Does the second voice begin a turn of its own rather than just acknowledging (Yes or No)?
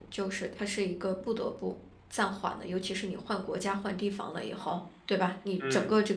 No